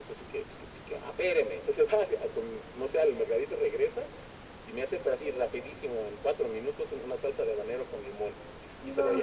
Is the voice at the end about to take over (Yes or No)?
No